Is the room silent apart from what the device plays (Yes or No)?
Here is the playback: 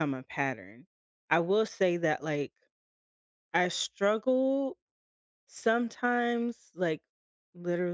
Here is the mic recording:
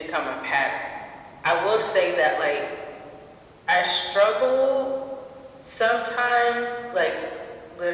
Yes